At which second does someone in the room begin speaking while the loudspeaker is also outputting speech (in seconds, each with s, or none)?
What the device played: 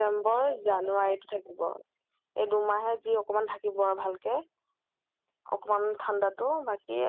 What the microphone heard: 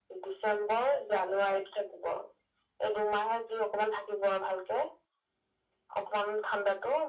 none